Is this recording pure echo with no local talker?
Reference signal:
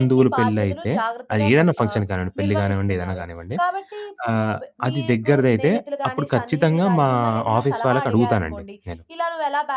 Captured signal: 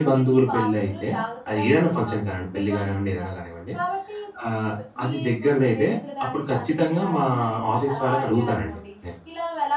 Yes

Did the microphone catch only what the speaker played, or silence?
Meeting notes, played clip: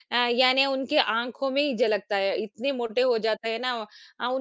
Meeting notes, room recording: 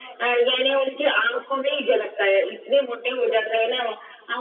Yes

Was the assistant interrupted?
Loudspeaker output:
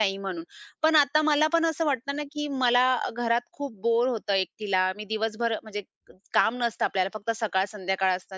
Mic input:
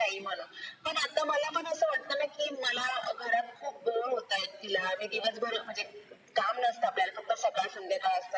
No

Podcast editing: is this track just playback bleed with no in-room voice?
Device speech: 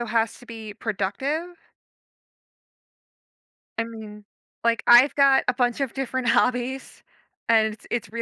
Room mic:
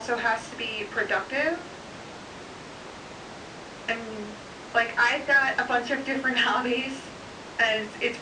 Yes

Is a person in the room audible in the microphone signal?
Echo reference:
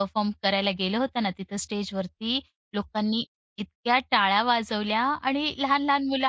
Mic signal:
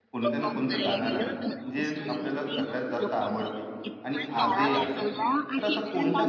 Yes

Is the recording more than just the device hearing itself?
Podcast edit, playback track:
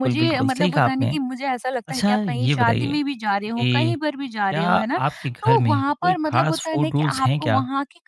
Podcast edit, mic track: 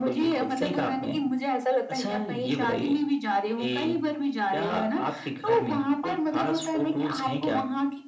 No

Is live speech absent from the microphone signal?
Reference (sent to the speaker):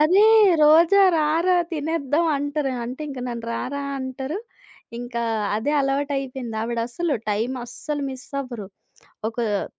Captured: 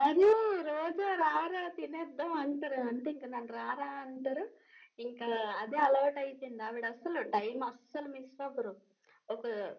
Yes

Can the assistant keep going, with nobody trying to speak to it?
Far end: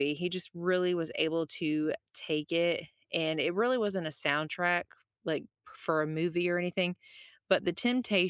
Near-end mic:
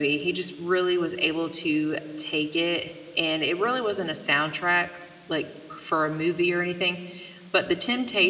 Yes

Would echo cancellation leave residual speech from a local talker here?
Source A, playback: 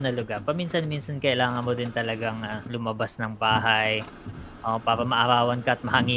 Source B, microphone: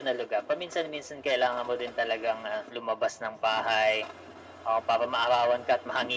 No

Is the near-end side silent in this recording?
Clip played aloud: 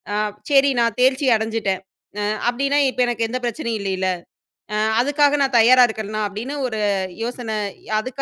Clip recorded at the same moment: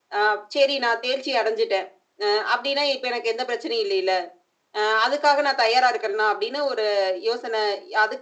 Yes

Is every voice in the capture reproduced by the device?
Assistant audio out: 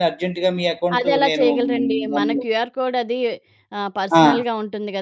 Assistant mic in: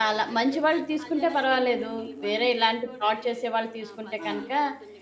No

